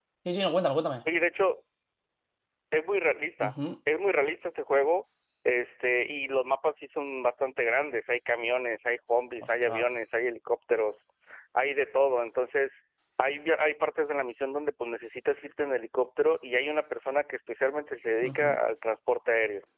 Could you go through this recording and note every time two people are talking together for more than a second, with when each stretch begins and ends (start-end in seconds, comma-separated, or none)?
none